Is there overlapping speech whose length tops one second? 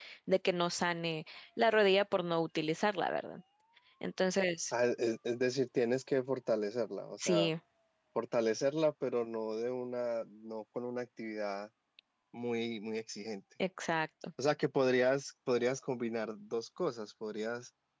No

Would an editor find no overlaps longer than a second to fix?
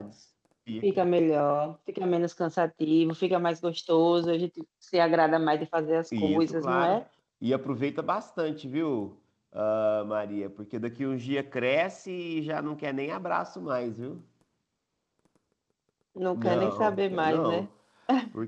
No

